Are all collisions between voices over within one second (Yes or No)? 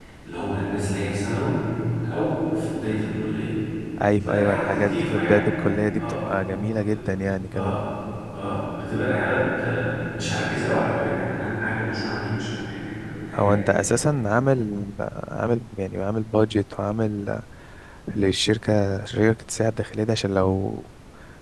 No